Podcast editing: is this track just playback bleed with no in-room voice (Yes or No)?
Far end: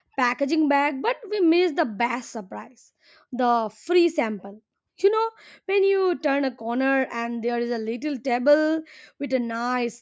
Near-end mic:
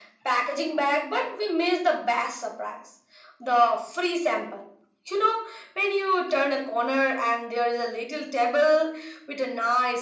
Yes